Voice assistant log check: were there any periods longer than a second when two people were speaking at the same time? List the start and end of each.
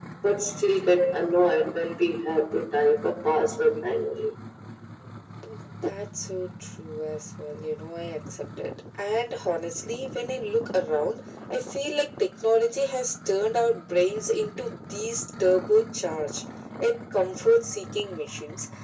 none

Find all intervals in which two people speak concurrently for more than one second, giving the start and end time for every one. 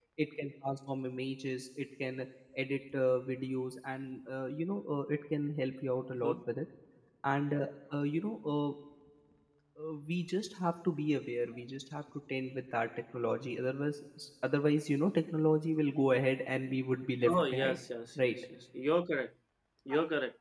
none

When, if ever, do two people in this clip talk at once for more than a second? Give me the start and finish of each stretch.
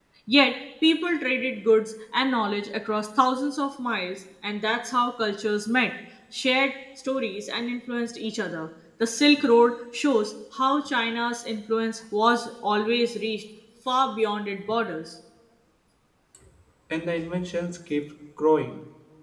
none

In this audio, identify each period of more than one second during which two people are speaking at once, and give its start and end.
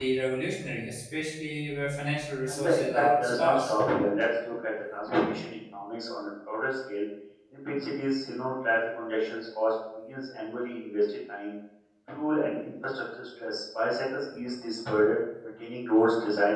2.5-3.7

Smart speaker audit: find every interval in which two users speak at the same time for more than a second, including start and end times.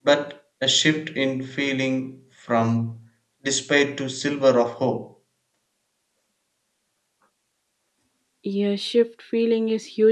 none

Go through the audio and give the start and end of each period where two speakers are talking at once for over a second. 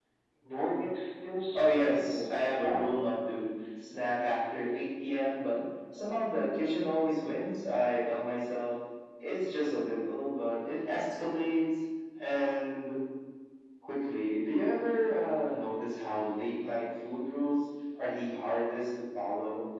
1.5-3.0

